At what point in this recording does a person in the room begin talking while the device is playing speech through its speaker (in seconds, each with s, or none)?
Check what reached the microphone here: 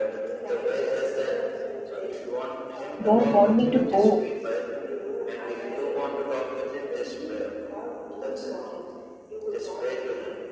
3.1 s